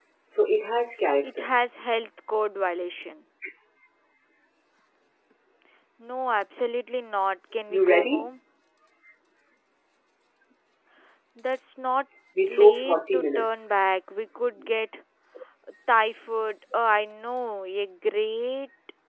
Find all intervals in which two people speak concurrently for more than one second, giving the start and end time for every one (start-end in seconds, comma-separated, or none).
12.5-13.7